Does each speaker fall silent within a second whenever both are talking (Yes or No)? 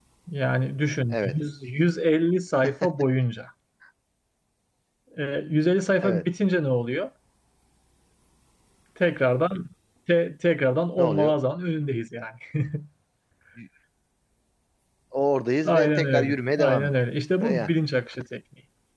No